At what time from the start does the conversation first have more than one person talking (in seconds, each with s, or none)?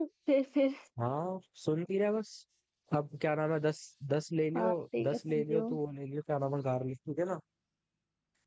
4.5 s